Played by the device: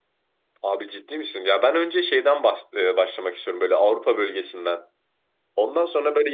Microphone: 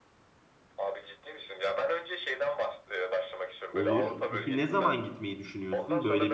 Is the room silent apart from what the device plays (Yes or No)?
No